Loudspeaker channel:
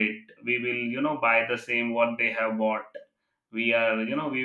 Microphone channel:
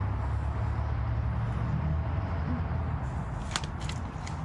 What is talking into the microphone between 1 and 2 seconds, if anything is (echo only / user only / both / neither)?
neither